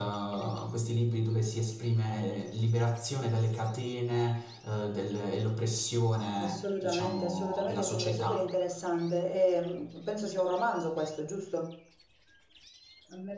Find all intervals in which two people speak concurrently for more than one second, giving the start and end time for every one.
6.4-8.5

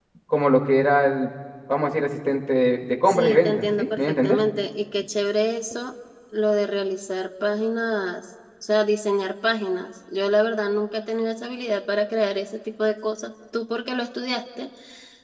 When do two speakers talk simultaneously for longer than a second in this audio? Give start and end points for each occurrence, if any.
3.1-4.4

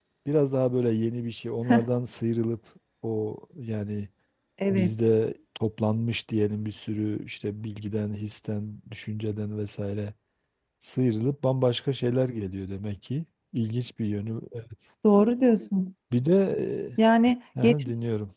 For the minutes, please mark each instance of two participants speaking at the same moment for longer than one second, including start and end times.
none

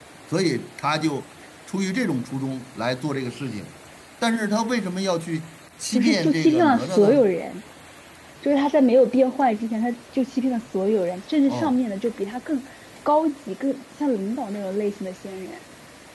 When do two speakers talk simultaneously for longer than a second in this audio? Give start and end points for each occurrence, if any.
5.9-7.2

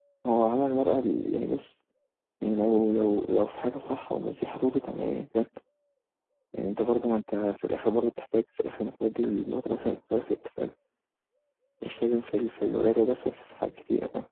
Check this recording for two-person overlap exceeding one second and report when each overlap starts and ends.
none

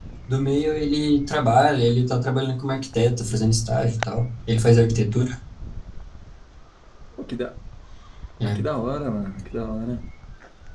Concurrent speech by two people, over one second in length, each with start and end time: none

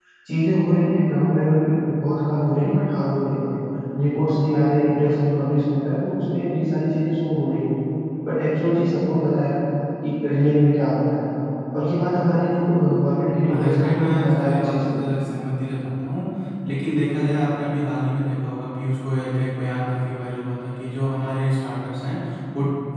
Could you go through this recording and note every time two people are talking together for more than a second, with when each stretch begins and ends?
13.5-15.0

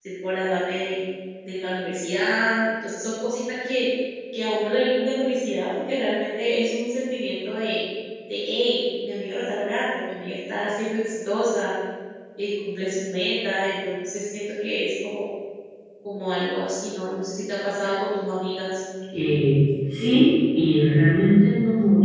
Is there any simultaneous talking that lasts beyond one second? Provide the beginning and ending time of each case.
none

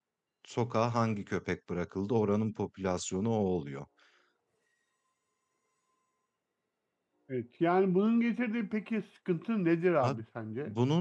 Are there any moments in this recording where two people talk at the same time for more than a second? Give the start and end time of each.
none

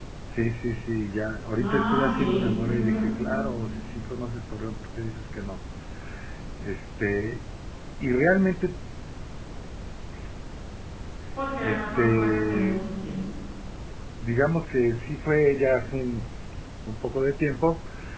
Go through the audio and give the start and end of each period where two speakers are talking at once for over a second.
1.6-2.9, 11.6-12.8

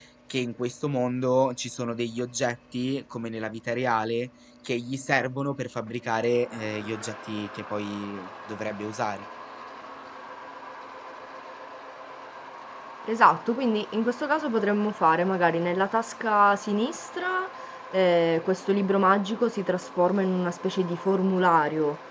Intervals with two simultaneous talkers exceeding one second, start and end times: none

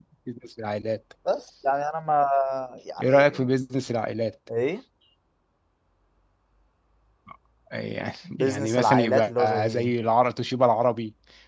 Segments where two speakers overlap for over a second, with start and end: 8.4-9.9

